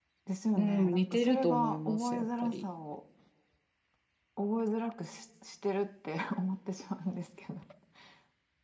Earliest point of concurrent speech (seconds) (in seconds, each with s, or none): 0.6 s